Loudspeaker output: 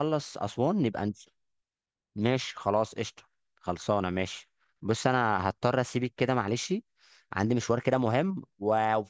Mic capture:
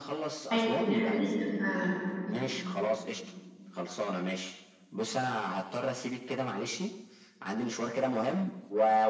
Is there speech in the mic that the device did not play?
Yes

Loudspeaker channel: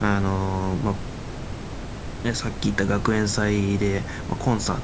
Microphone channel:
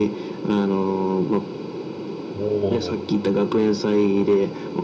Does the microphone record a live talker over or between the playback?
Yes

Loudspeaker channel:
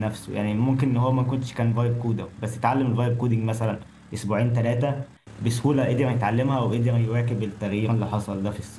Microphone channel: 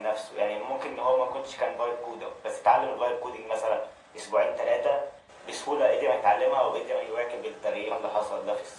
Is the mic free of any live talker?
Yes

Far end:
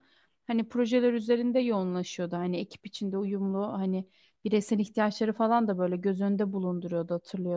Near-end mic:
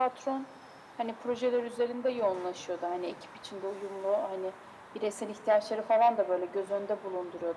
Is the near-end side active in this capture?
No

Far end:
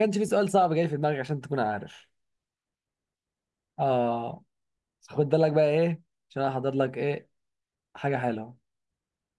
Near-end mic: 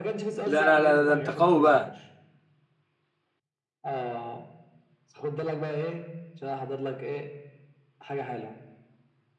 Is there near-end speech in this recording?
Yes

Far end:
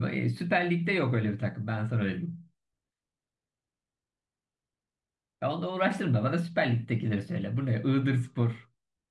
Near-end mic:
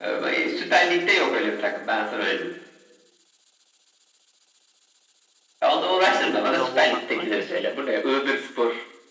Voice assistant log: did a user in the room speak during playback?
Yes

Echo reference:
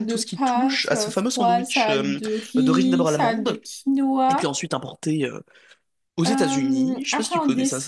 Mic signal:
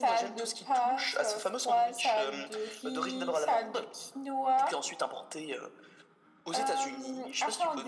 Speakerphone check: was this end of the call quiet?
Yes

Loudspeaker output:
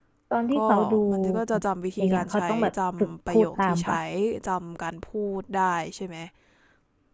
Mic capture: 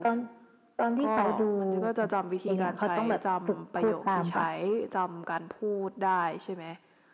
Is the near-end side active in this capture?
No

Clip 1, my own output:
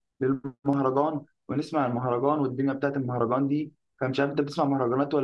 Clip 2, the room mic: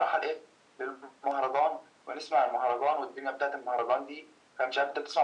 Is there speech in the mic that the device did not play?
No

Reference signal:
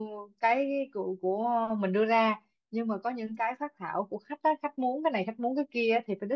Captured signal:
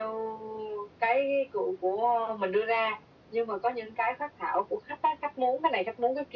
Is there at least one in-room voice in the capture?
No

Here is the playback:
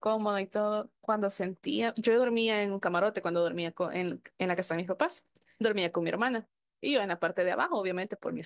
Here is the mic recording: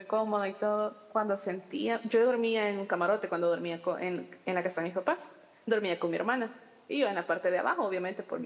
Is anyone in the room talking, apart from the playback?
No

